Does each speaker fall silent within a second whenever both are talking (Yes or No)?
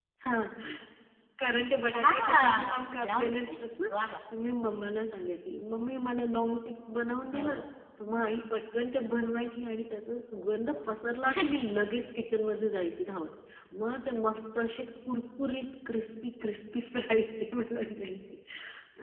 No